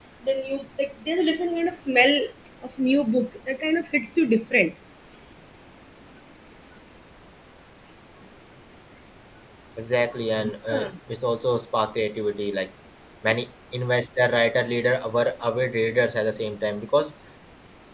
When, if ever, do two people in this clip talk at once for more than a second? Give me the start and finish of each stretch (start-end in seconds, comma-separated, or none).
none